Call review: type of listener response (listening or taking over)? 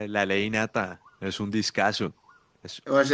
taking over